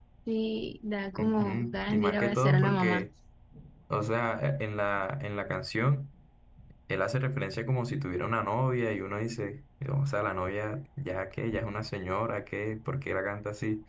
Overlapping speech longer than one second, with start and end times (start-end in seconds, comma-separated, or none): 1.2-3.0